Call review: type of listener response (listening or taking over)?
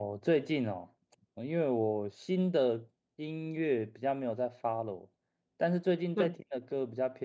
listening